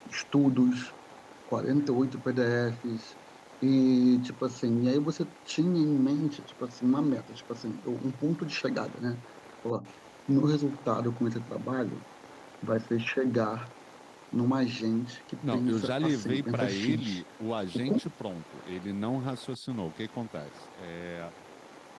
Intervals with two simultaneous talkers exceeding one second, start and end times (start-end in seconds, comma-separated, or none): 15.5-17.2